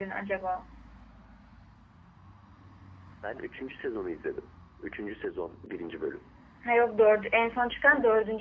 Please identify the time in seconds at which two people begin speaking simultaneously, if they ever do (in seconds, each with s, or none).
none